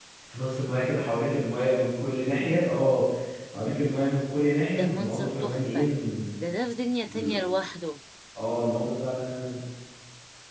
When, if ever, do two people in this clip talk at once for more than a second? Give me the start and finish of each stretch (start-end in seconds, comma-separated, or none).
4.7-5.9